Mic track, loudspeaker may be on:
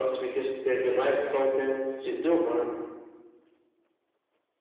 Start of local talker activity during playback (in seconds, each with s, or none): none